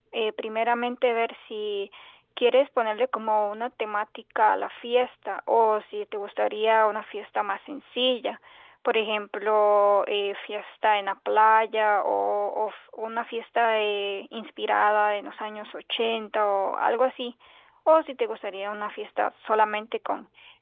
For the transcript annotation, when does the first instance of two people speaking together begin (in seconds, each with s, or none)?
none